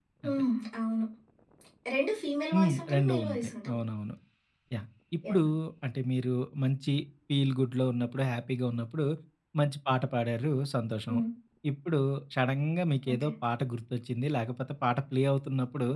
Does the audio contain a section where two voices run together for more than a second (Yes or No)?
Yes